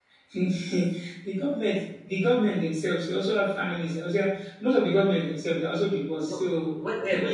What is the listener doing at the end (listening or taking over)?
taking over